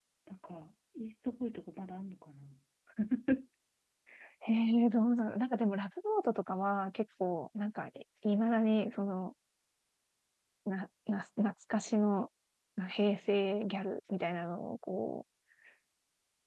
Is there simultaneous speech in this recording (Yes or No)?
No